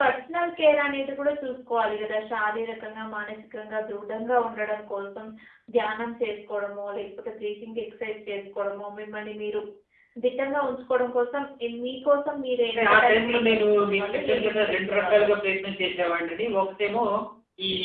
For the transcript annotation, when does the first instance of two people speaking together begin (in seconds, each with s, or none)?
12.7 s